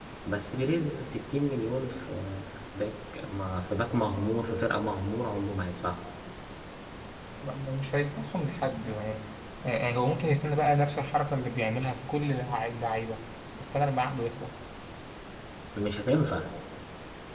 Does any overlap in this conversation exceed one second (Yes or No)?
No